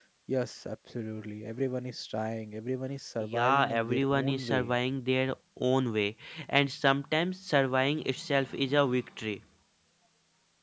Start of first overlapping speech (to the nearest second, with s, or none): 3 s